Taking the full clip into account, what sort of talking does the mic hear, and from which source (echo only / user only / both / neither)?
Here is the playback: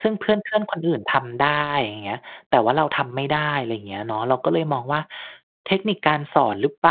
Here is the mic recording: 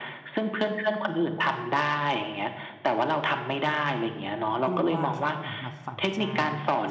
both